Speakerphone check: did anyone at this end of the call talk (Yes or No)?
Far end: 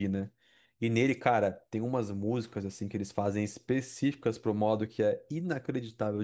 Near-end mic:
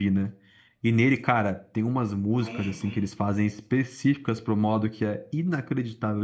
Yes